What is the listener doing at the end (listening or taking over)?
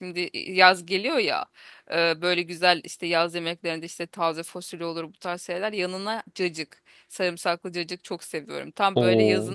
listening